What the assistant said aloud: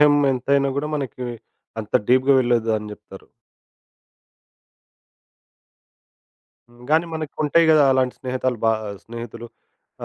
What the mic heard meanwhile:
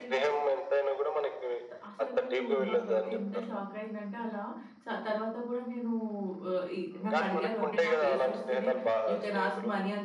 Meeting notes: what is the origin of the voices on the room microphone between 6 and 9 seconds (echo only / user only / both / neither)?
both